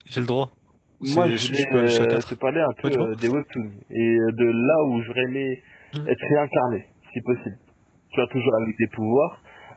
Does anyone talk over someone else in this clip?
Yes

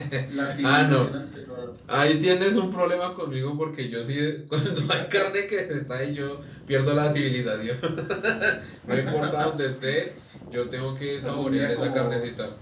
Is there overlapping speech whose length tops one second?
Yes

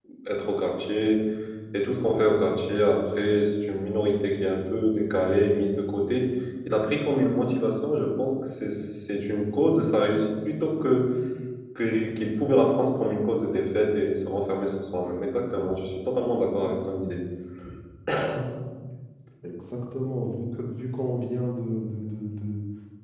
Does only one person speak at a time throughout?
Yes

